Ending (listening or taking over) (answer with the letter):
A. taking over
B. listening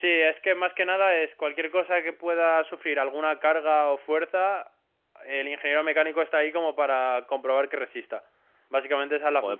A